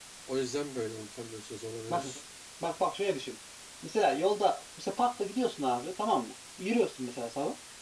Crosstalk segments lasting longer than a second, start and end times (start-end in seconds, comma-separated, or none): none